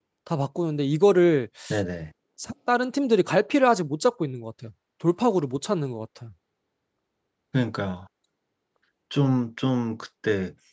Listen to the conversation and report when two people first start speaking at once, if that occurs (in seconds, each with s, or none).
none